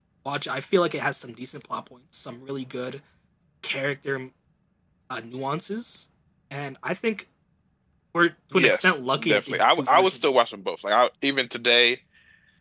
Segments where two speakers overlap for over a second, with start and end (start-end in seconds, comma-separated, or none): 8.5-10.4